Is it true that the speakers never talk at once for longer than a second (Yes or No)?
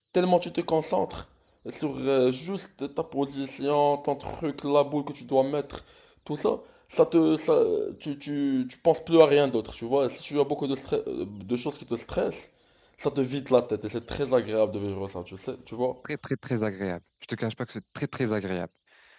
Yes